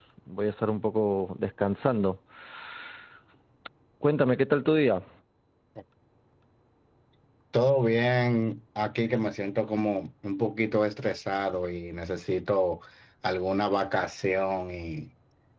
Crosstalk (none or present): none